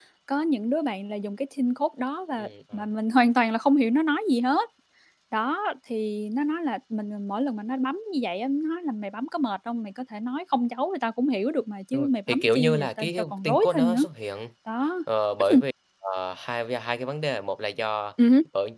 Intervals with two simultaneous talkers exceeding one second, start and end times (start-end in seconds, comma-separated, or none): 11.9-14.0